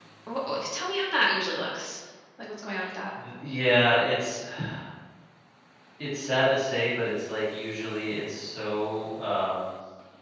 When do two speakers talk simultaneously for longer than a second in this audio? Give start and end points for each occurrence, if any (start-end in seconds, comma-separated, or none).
none